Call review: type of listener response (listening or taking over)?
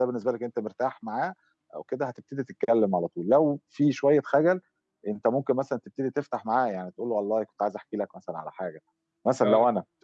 listening